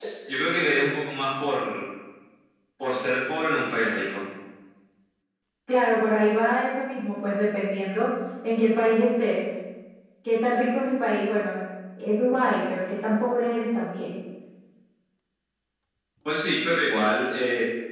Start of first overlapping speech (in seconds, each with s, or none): none